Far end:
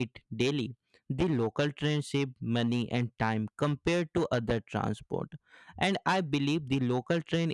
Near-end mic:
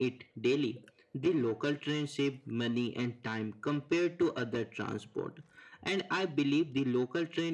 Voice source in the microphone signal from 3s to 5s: echo only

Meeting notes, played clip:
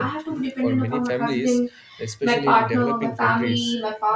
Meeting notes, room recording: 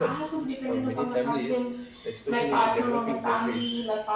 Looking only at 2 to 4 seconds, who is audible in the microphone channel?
echo only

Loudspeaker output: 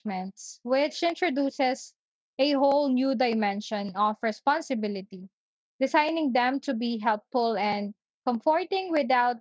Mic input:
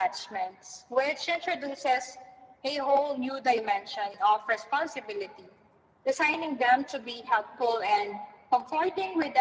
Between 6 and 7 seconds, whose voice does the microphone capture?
echo only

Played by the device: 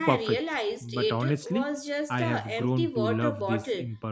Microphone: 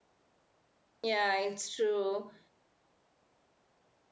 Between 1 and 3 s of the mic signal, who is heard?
user only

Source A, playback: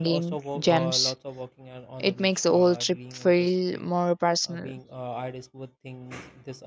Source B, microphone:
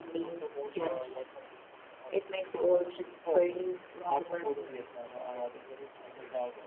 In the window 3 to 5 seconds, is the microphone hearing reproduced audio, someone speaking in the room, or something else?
both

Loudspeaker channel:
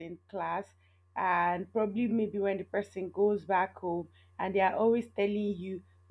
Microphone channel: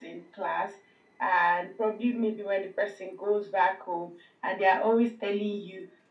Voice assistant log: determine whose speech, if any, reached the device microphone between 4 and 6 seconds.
echo only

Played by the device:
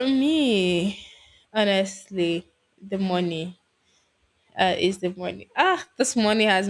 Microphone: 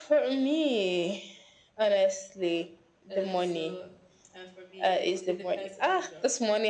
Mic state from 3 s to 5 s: both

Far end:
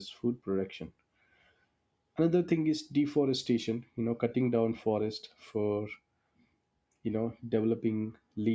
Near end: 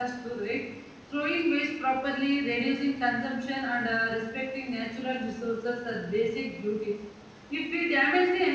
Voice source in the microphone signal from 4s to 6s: user only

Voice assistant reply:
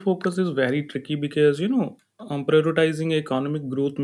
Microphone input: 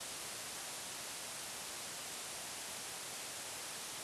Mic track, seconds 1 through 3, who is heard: neither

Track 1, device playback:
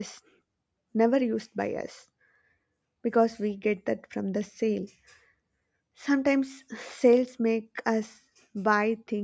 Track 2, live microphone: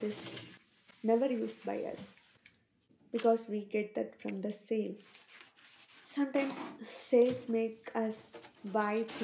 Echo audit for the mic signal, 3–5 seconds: echo only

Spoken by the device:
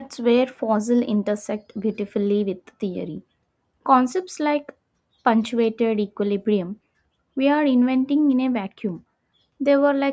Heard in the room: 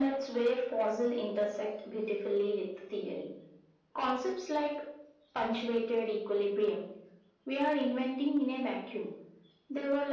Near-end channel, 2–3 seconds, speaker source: echo only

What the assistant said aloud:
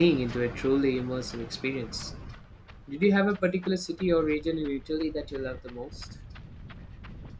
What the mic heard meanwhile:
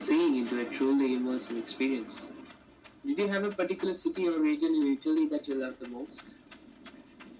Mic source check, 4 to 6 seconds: echo only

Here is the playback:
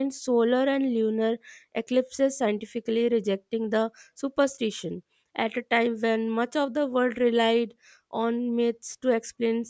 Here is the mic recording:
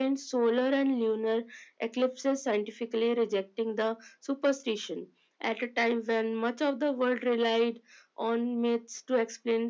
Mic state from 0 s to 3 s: echo only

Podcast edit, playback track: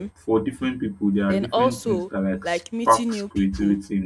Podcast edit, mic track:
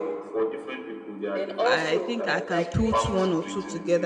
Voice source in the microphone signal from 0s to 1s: echo only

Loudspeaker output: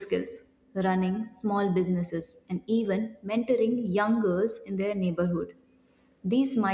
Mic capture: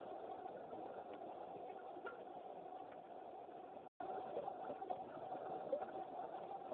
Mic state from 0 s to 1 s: neither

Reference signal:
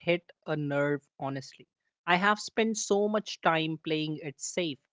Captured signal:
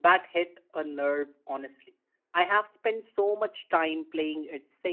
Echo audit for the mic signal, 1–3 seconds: echo only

